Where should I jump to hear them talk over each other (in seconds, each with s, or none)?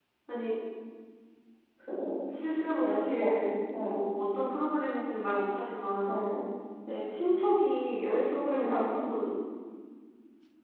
2.8 s